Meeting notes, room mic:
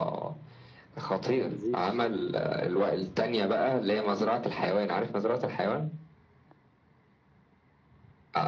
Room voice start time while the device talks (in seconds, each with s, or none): 1.4 s